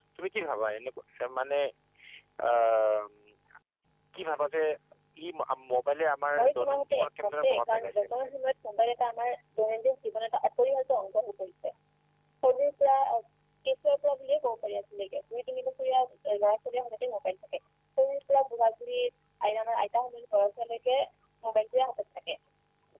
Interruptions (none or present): present